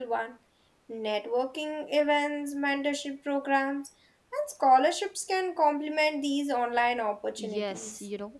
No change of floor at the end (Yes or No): No